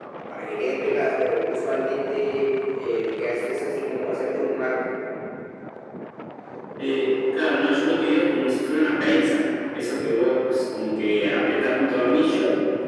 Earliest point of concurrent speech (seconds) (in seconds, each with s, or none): none